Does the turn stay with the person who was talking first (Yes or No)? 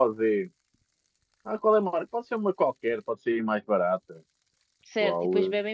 No